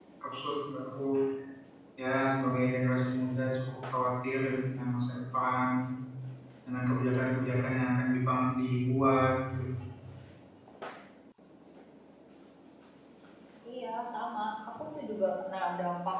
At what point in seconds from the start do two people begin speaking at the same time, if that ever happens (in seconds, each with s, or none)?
none